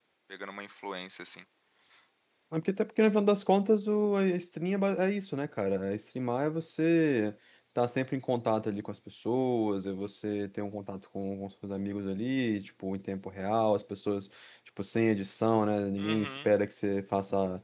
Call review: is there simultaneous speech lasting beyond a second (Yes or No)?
No